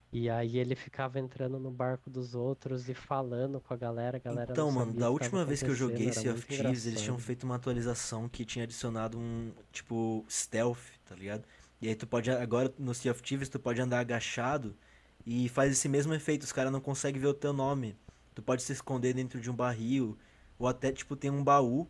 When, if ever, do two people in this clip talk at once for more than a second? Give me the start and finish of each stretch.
4.3-7.3

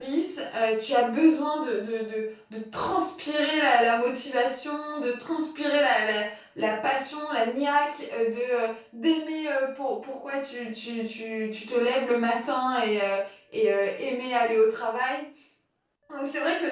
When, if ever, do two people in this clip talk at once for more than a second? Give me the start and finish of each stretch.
none

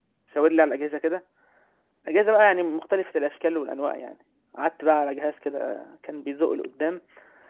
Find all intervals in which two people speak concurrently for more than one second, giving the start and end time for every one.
none

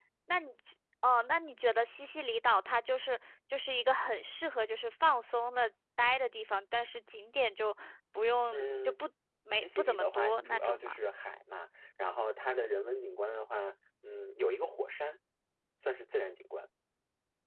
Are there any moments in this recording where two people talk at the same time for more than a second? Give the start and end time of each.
9.5-11.0

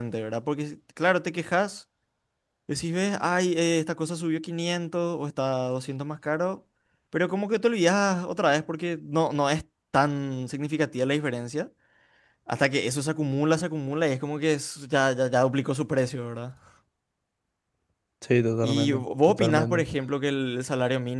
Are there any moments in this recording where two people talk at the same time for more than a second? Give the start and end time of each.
18.6-19.8

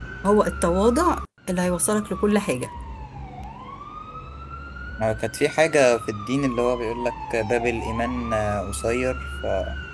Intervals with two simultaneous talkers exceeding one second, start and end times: none

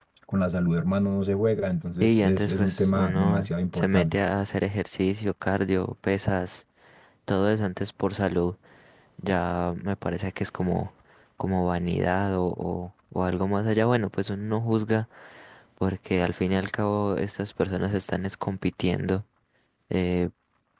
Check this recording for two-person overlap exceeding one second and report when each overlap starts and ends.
2.0-4.2

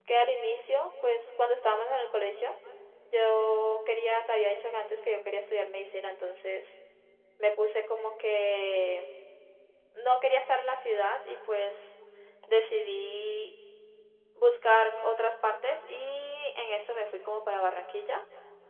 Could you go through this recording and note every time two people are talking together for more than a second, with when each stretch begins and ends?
none

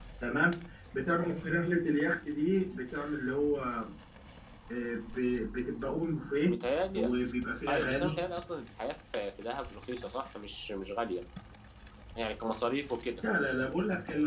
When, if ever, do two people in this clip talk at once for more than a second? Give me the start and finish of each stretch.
none

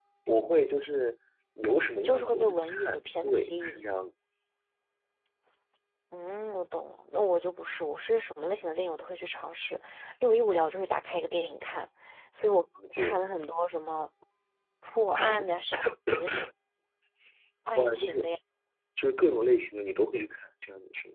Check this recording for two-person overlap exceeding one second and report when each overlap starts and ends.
1.9-3.8

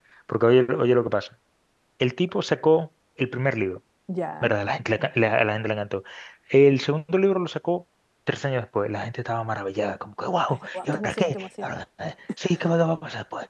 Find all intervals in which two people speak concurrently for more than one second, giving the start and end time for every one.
10.5-11.7

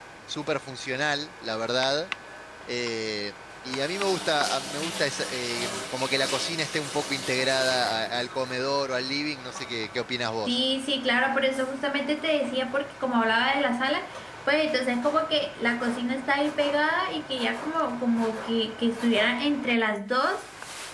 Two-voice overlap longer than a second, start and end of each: none

